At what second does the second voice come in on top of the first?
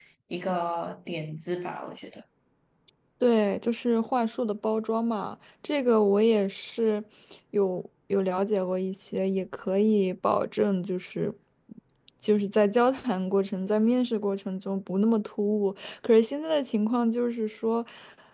none

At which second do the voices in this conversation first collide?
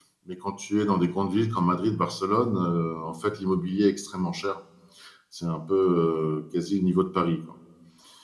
none

